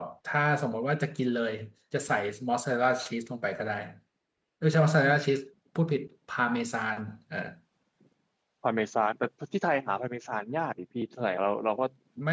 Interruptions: none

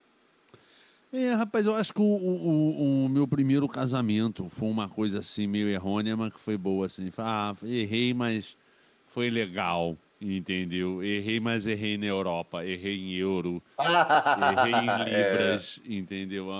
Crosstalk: present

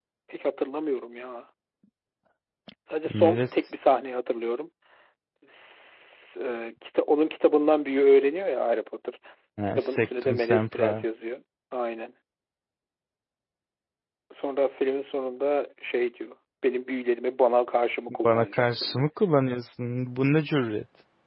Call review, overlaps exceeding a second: present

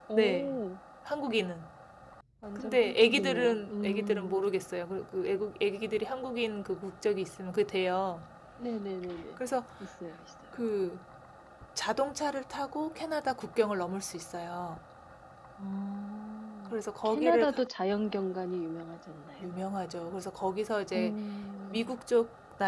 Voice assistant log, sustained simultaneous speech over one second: present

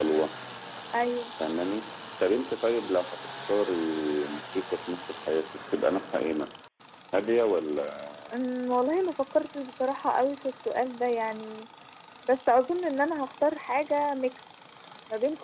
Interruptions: none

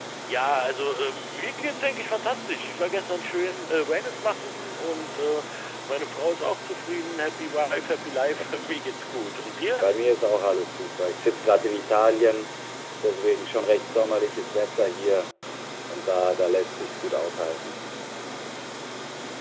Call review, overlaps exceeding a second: none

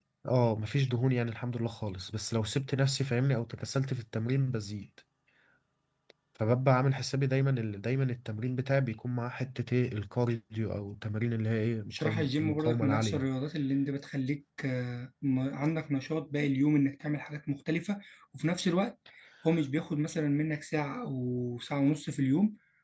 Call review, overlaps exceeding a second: present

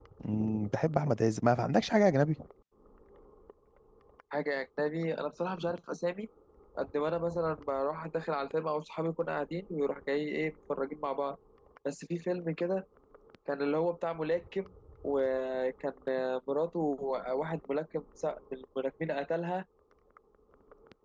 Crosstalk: none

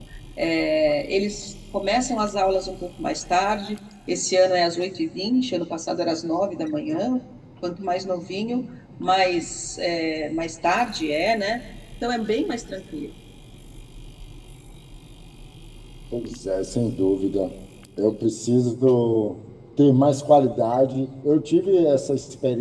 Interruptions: none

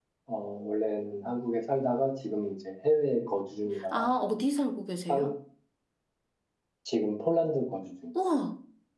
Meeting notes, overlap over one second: none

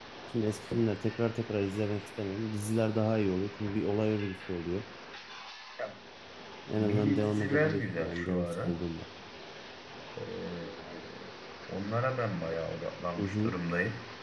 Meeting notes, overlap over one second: present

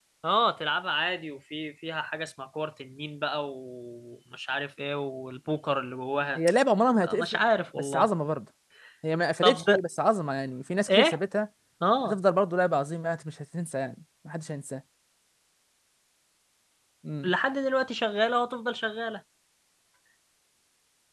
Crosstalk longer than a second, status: none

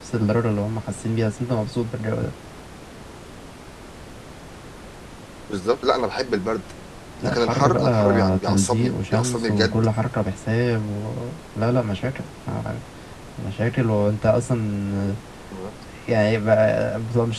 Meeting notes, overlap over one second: present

